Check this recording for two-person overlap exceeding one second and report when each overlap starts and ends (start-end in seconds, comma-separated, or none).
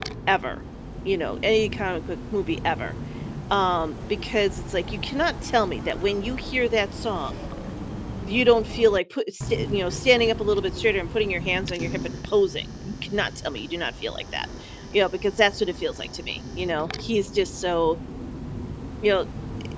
none